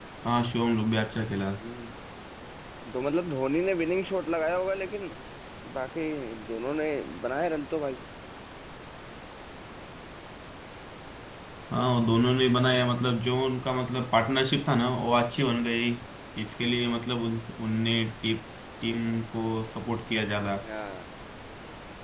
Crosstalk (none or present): none